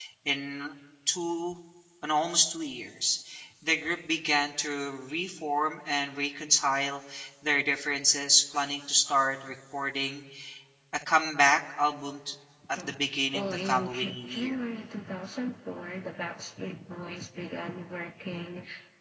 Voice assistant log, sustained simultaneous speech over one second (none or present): present